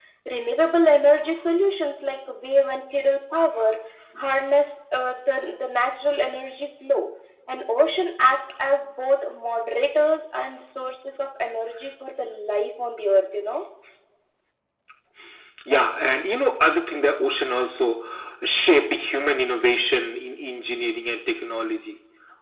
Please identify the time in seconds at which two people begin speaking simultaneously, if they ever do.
none

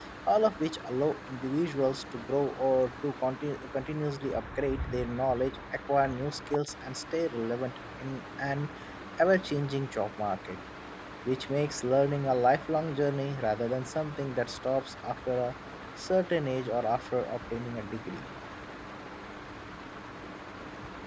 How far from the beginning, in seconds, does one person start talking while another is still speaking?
none

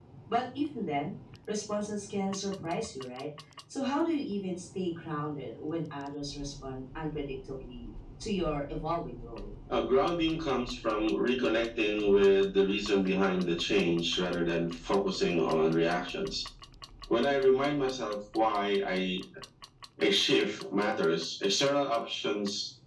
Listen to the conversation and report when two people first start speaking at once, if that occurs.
none

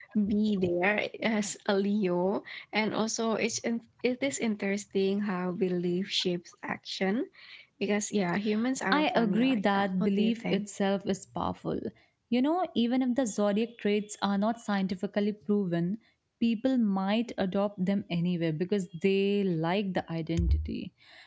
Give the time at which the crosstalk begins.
8.9 s

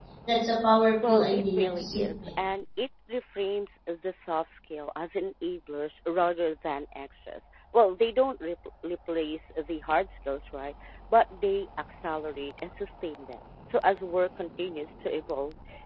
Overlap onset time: 1.1 s

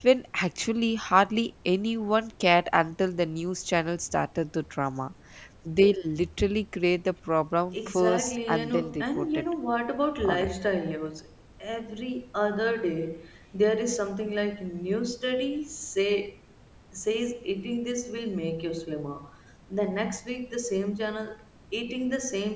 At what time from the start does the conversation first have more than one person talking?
7.7 s

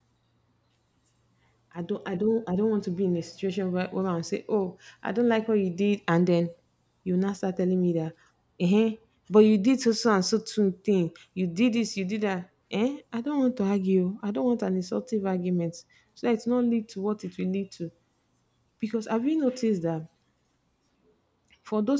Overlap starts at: none

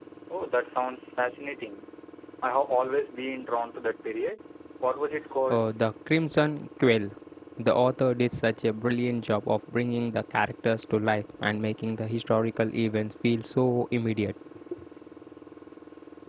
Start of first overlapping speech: none

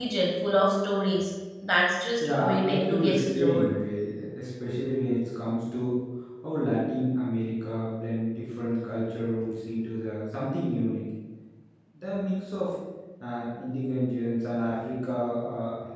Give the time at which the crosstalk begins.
2.2 s

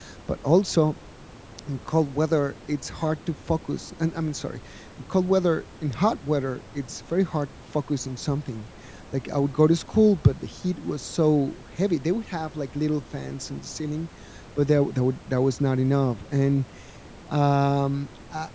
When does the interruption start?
none

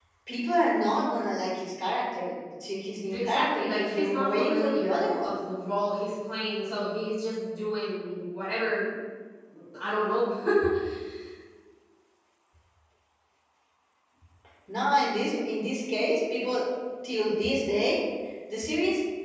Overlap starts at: 3.1 s

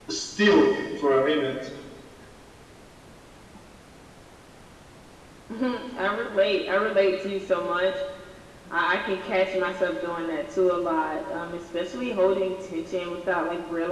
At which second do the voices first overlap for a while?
none

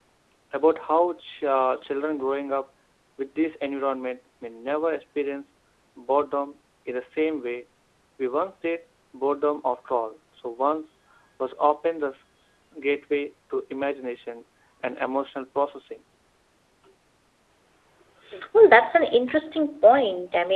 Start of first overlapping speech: none

